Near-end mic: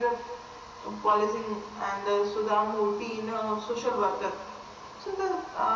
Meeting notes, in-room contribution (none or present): none